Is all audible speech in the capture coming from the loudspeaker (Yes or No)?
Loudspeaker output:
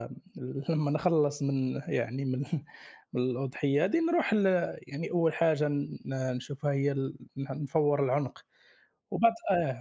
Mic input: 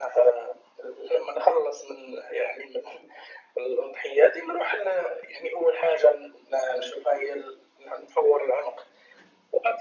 Yes